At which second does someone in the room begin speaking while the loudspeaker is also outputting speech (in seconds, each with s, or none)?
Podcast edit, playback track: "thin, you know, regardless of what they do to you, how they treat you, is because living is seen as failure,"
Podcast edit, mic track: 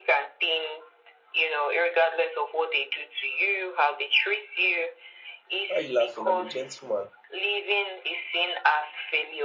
5.7 s